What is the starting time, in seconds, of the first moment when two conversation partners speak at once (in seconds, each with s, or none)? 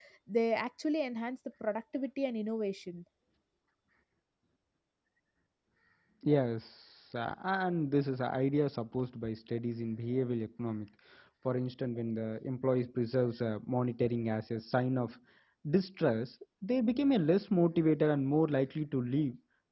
none